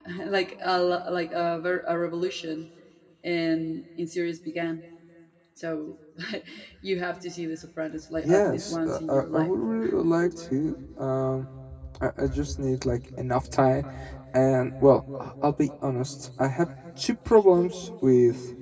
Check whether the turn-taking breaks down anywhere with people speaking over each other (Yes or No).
Yes